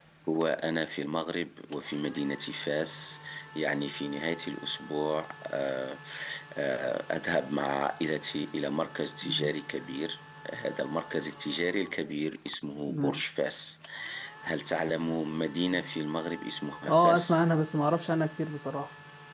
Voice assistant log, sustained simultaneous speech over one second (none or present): none